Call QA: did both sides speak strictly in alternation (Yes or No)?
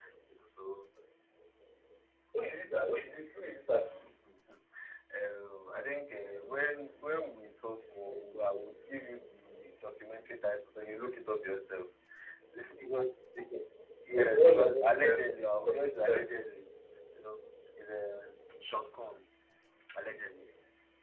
No